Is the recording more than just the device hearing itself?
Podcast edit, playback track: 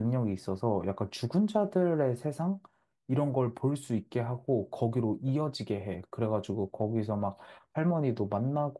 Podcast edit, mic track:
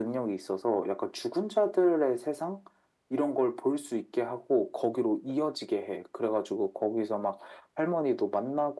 No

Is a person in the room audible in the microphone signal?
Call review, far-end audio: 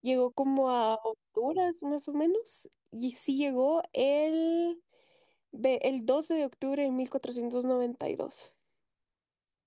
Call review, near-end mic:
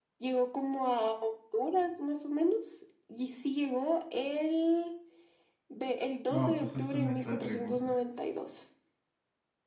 Yes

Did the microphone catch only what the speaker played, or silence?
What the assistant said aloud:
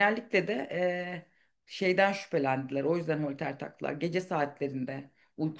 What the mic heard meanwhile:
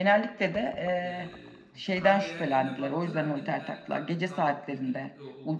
No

